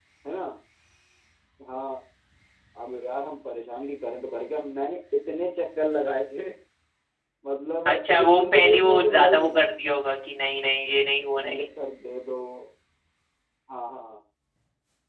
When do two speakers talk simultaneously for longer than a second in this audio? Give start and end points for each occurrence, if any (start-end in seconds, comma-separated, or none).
7.9-9.6